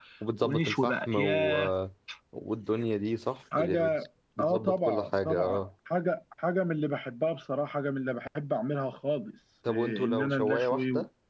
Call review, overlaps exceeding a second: present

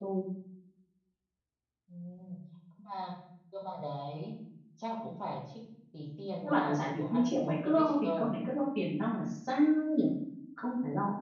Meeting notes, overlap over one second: present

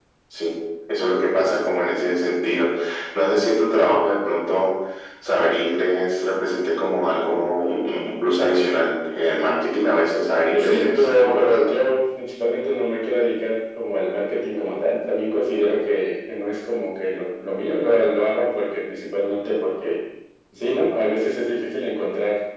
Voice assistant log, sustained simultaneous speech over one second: present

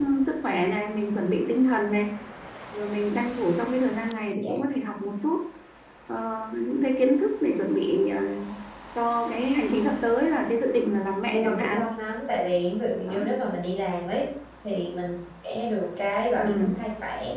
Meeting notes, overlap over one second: none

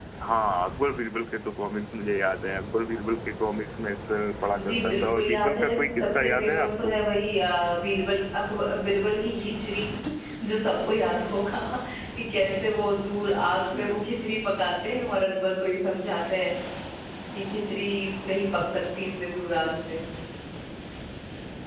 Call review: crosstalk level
present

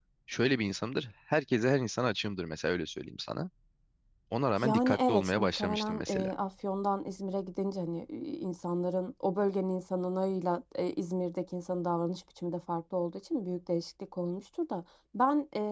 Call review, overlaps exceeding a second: present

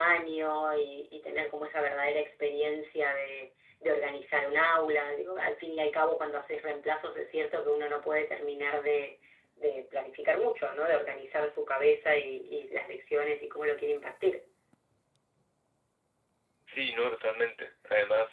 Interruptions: none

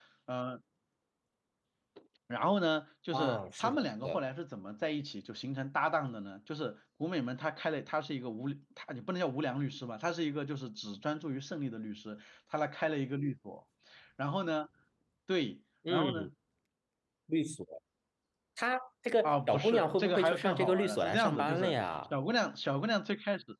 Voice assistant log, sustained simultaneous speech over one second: present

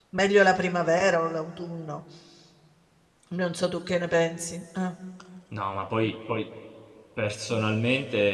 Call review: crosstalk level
none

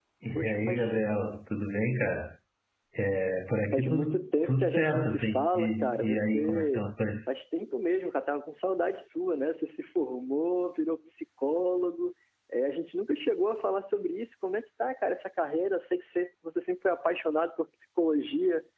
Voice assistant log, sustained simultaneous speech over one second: present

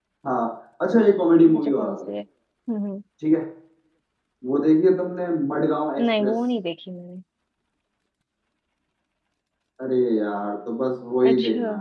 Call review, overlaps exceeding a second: none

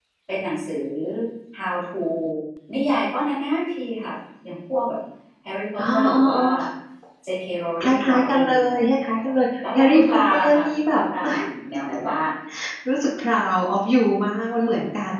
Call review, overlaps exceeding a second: present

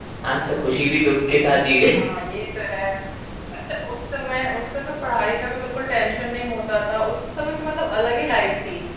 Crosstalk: none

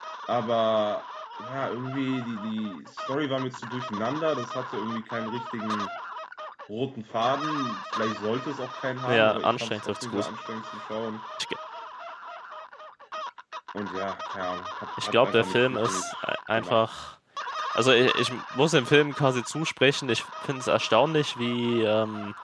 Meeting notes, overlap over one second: present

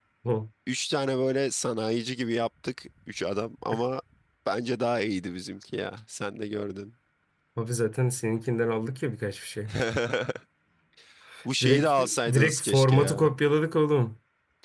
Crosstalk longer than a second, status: present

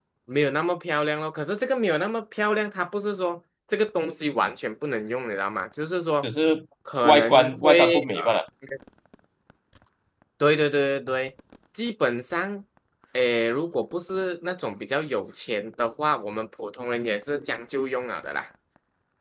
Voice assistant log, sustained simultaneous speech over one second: present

